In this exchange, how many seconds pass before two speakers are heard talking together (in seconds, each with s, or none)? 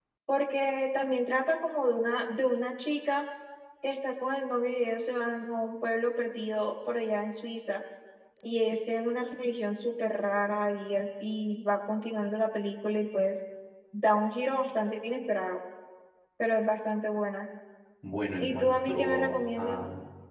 18.4 s